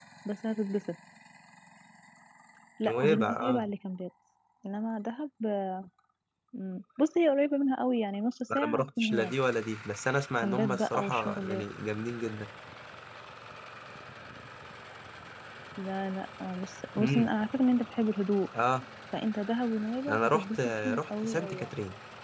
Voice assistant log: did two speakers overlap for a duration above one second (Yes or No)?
Yes